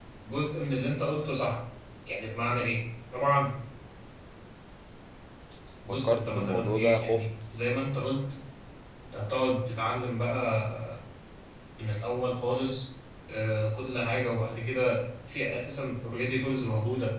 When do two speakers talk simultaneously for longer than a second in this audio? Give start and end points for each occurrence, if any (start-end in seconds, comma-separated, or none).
5.9-7.2